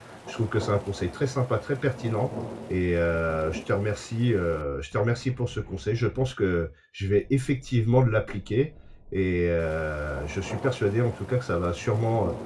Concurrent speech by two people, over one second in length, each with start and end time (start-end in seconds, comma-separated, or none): none